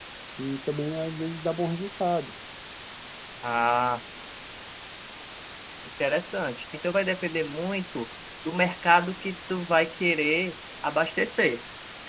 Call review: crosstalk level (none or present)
none